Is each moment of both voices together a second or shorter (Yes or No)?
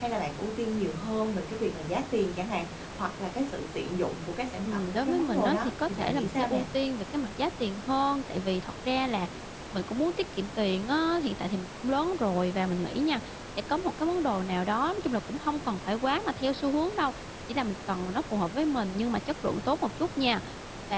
No